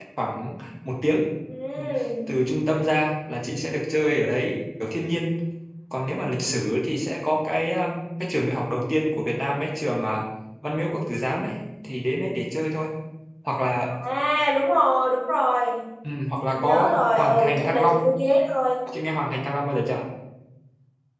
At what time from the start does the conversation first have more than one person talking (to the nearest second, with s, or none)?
17 s